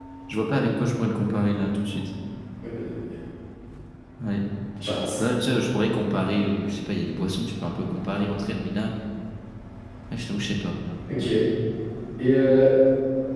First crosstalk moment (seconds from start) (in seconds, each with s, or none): none